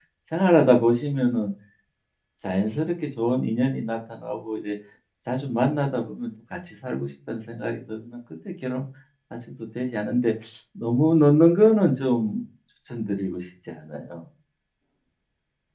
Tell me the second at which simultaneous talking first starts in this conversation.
none

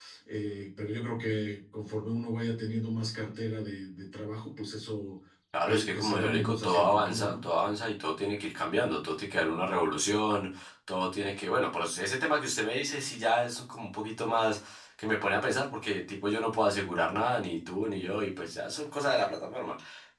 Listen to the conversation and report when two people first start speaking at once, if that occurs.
5.7 s

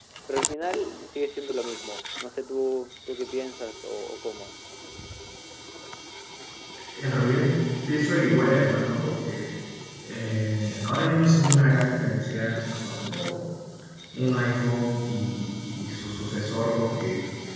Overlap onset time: none

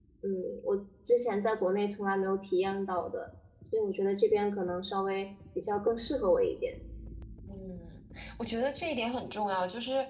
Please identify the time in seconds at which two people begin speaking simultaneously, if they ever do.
none

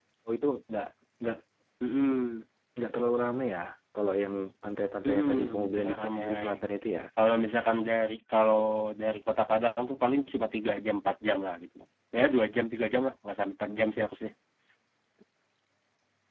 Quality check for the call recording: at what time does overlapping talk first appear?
5.0 s

